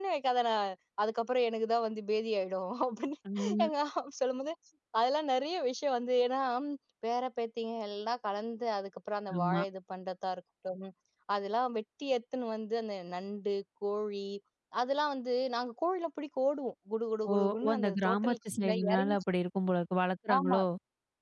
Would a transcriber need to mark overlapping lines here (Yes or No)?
Yes